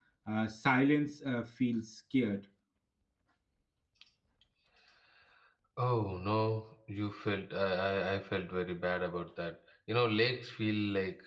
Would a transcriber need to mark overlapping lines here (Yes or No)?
No